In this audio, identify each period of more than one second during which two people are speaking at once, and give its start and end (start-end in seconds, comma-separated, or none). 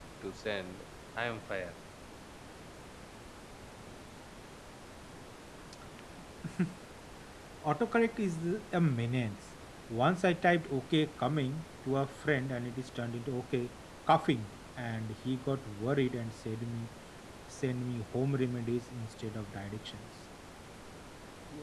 none